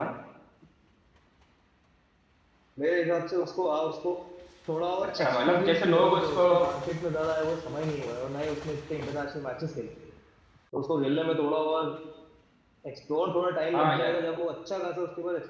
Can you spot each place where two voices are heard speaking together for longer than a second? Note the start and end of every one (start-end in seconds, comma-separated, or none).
5.1-6.4